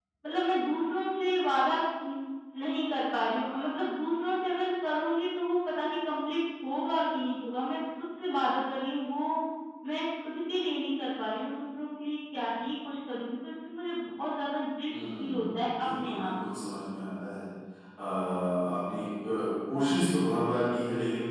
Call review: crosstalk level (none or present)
present